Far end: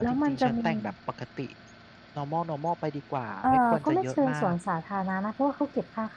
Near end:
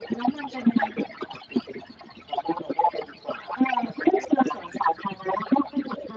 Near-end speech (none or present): none